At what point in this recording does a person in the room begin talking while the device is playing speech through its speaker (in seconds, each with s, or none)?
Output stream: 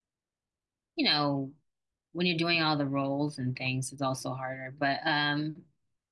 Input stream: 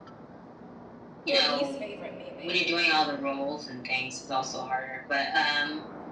1.3 s